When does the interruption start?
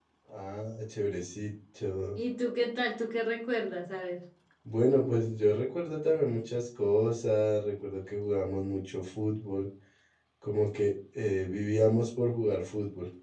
none

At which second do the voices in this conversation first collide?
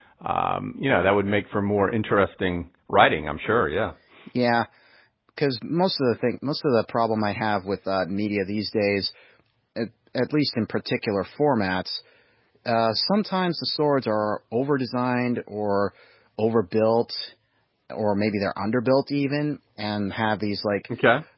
none

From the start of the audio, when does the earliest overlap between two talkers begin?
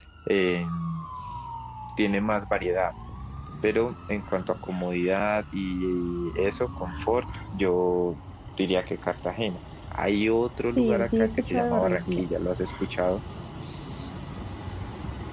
11 s

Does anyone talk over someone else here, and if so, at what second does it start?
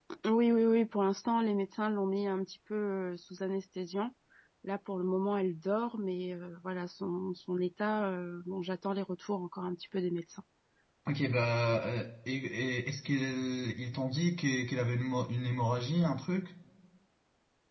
none

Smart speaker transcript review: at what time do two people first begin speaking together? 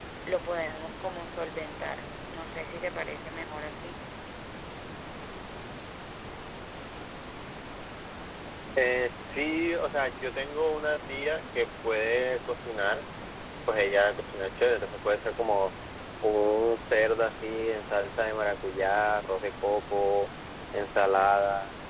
none

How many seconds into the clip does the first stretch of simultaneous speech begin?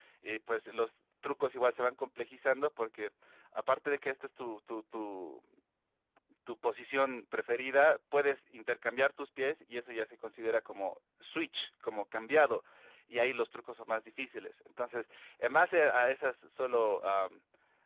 none

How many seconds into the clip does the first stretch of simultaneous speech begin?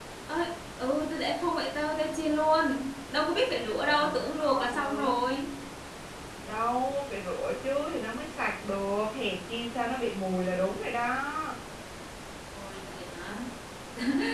4 s

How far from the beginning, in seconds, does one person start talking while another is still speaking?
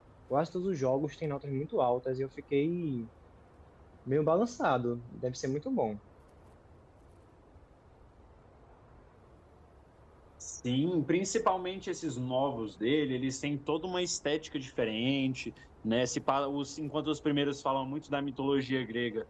none

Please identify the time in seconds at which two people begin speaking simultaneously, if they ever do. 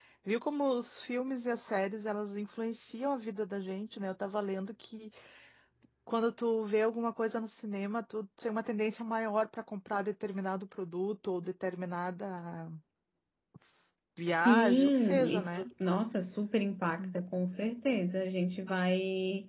14 s

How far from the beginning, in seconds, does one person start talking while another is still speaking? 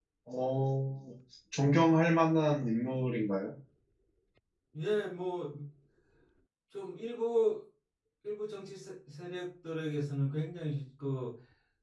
none

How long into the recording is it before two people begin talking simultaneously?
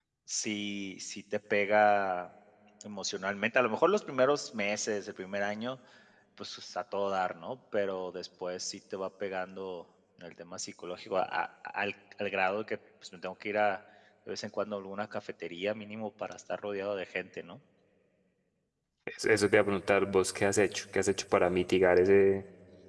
none

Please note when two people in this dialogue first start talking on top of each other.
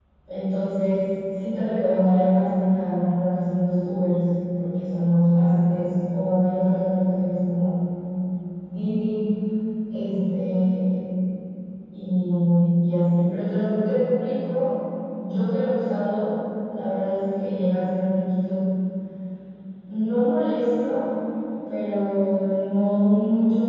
none

